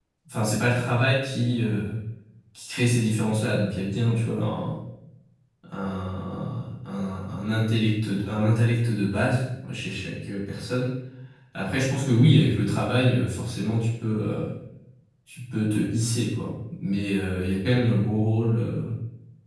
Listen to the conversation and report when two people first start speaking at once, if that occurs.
none

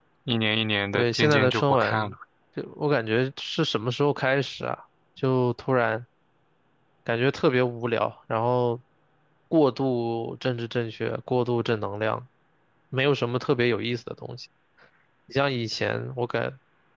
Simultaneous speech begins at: 0.9 s

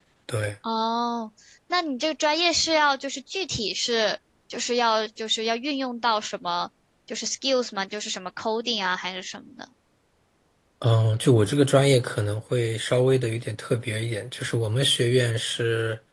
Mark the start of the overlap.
none

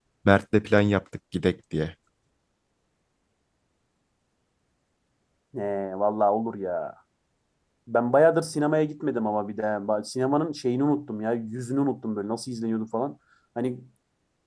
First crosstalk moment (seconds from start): none

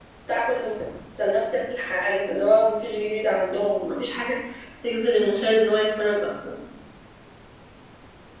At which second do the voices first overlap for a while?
none

